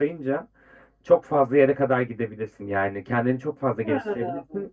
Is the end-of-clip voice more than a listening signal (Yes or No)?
No